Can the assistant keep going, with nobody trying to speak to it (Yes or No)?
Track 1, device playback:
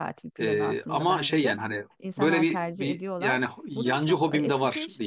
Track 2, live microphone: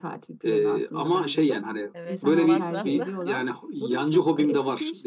No